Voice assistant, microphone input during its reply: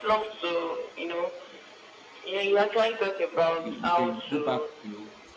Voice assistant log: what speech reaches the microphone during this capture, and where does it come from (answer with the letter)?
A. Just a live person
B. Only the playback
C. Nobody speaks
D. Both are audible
D